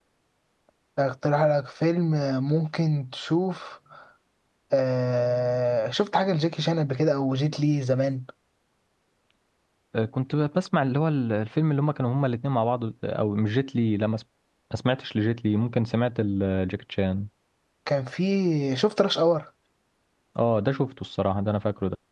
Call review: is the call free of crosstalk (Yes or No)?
Yes